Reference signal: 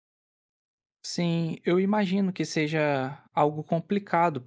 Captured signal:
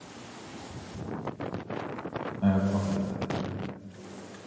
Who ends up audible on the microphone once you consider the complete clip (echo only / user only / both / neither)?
user only